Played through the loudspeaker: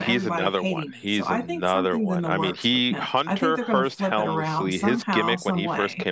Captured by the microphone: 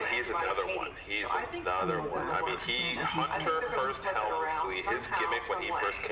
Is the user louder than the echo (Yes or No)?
No